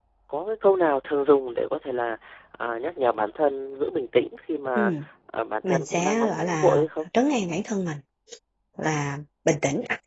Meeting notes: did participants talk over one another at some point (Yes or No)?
Yes